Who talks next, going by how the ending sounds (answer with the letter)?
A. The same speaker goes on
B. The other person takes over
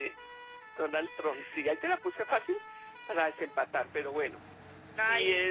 A